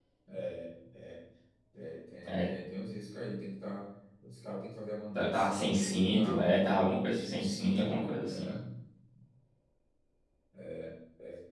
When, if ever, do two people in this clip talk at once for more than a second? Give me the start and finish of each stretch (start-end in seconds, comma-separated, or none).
5.2-8.4